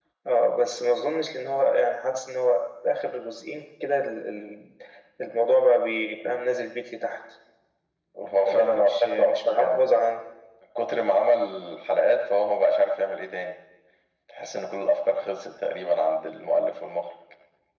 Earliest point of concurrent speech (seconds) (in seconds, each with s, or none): 8.5 s